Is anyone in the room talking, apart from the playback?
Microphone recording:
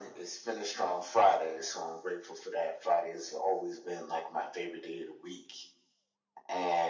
No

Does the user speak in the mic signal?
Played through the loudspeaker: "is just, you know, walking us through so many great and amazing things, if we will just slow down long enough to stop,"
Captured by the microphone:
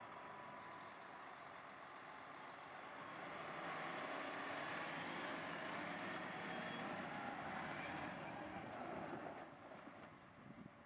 No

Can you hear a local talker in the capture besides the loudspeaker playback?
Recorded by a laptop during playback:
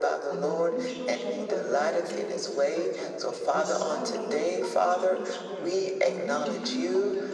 Yes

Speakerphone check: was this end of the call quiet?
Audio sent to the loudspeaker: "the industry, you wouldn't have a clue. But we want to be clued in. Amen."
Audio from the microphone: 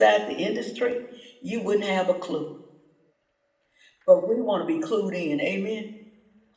Yes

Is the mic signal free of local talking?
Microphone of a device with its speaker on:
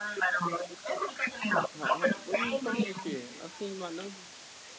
No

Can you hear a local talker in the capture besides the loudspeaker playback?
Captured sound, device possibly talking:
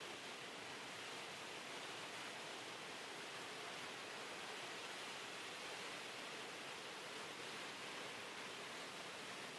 No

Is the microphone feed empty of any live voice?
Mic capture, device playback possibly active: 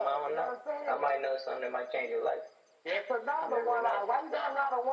Yes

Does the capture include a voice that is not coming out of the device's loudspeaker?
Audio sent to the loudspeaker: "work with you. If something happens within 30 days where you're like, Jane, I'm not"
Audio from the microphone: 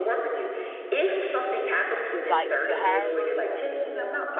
Yes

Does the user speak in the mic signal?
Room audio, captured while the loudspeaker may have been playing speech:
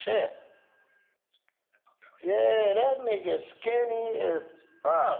No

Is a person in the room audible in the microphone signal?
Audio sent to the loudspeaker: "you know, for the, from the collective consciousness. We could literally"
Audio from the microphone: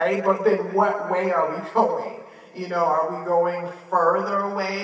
Yes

